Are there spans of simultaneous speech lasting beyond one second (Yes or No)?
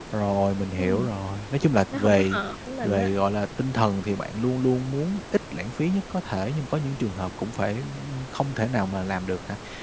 No